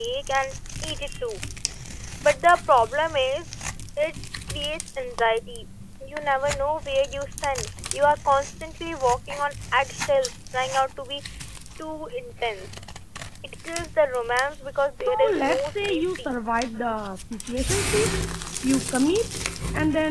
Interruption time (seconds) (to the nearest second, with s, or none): 15 s